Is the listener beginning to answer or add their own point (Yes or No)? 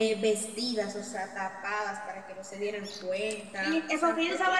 Yes